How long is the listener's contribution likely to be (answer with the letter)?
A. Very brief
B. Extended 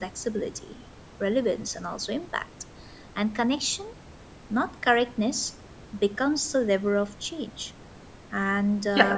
B